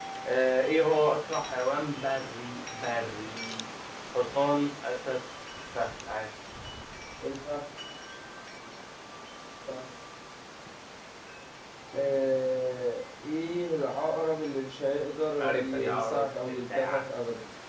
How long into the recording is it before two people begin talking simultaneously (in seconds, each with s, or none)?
15.4 s